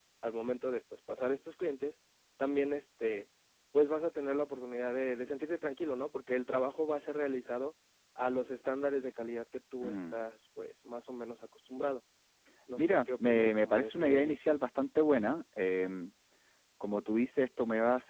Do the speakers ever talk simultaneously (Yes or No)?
Yes